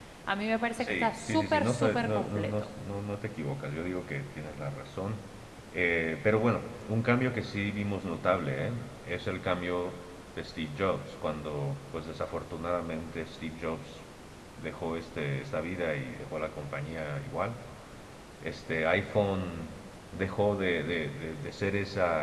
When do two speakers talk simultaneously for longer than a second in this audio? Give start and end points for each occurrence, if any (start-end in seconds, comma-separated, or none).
0.8-2.7